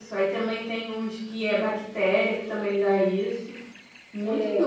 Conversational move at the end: taking over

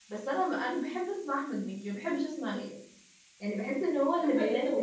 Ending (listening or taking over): taking over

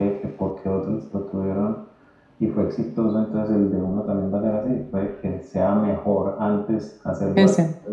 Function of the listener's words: listening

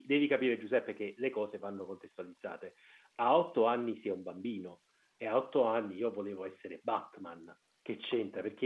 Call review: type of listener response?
listening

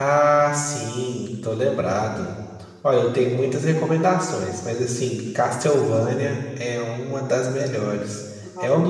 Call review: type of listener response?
listening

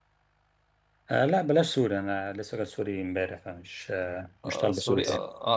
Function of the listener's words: taking over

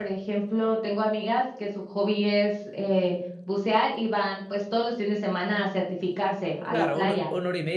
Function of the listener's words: taking over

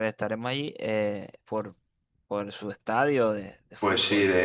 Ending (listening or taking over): taking over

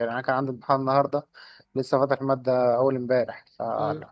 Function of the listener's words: listening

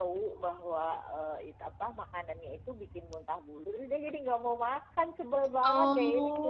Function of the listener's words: taking over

